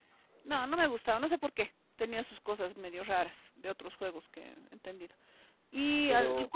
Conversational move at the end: listening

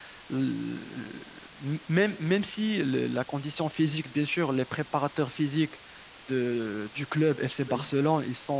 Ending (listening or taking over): listening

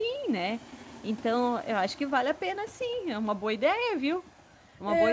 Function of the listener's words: taking over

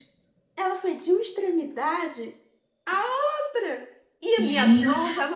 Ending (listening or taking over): listening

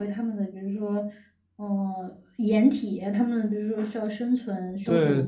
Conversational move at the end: taking over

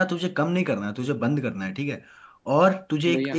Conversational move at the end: listening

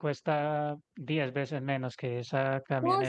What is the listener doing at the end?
taking over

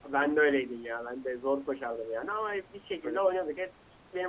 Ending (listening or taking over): listening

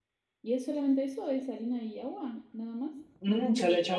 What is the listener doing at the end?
taking over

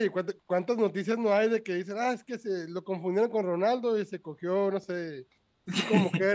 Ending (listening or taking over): listening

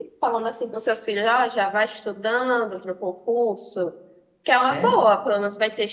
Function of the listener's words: listening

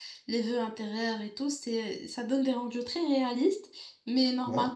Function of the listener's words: listening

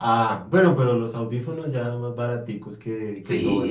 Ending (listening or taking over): taking over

